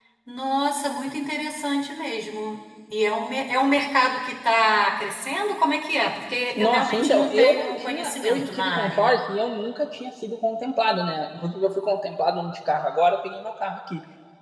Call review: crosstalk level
present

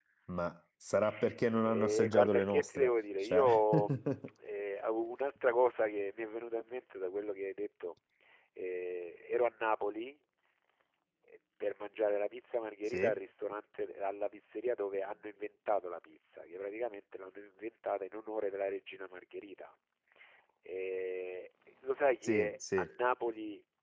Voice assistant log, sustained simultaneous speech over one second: present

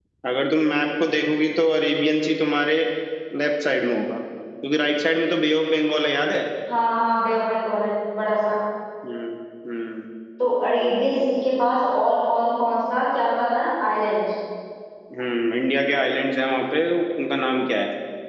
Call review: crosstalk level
none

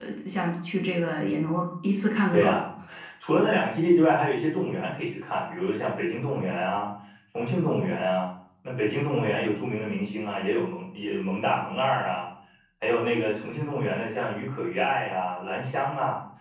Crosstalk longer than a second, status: none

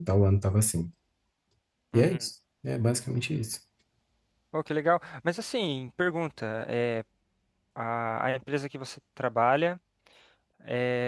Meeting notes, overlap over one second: none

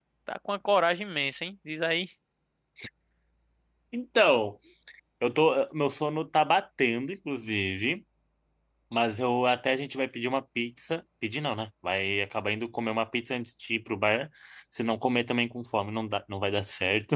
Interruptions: none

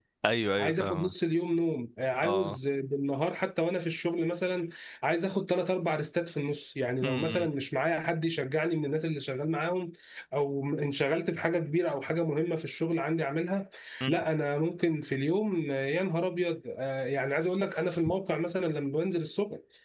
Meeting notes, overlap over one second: none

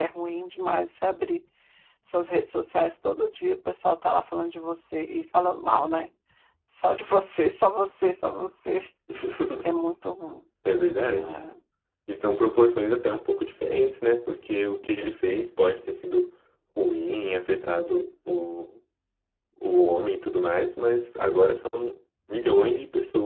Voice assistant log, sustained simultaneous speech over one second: none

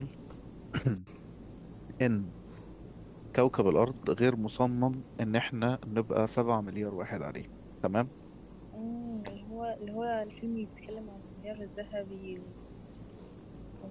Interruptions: none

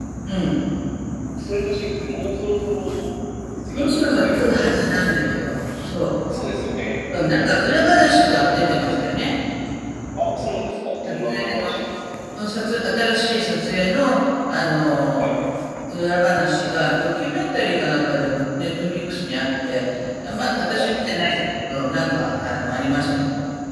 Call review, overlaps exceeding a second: present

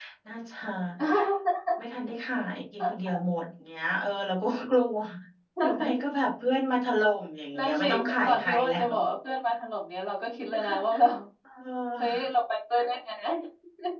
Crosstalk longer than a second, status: present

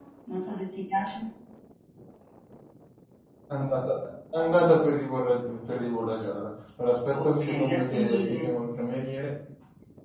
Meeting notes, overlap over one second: present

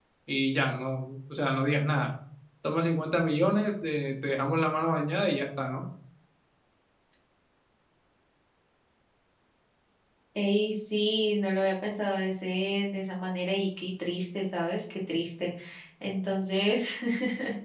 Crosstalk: none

